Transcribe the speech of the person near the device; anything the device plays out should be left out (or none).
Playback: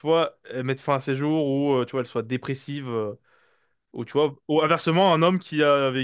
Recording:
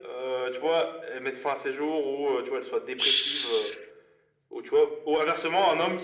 S-